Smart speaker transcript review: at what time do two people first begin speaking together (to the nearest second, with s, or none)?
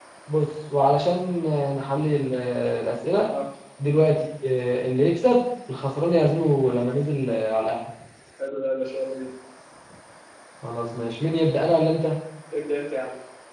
none